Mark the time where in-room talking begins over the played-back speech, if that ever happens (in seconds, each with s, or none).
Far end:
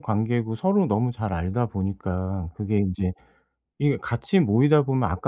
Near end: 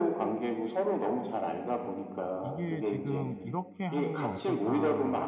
2.4 s